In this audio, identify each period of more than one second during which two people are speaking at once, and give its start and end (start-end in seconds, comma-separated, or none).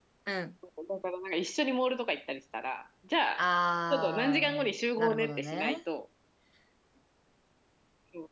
3.9-5.8